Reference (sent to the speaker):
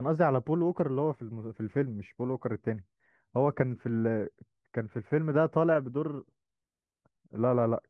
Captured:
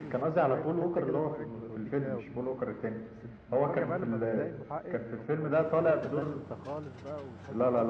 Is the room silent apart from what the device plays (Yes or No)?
No